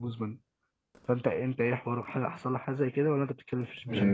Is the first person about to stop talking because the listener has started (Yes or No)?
Yes